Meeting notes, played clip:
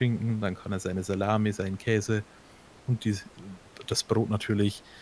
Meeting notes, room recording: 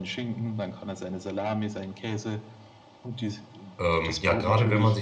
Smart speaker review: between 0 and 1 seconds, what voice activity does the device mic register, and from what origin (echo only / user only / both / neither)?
echo only